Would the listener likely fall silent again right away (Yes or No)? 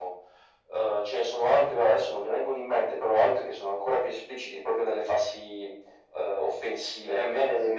No